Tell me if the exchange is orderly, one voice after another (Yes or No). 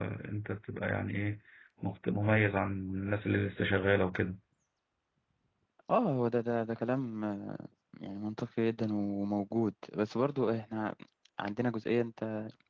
Yes